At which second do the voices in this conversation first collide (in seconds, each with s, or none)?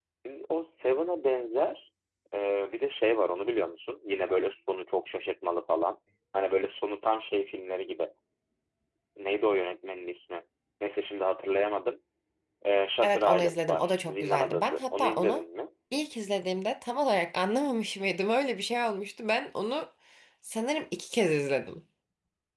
13.0 s